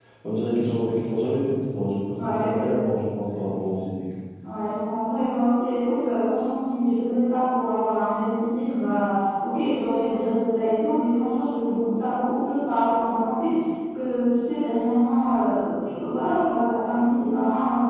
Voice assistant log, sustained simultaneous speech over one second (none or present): none